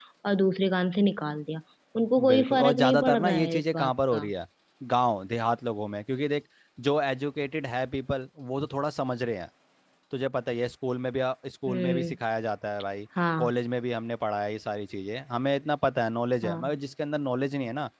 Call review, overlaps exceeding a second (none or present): present